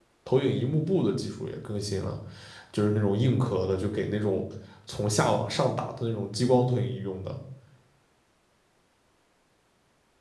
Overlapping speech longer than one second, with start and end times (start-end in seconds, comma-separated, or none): none